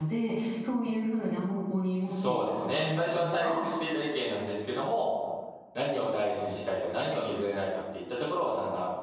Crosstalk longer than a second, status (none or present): present